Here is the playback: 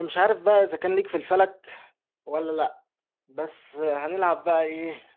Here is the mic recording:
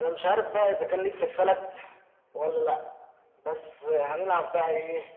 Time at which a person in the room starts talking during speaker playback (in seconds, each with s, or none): none